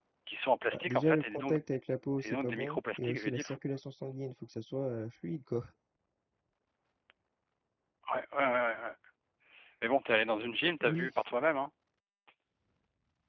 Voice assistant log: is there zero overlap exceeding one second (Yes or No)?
No